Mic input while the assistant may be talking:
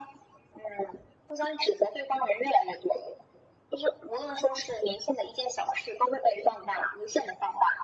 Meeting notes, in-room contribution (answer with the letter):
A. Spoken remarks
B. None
B